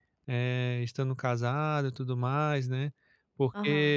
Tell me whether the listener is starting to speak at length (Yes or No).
No